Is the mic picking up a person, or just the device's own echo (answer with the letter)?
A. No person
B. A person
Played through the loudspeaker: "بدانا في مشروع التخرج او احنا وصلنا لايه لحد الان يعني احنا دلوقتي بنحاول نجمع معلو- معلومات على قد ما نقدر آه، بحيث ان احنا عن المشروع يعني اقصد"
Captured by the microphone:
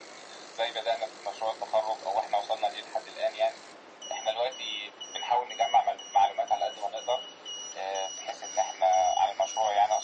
A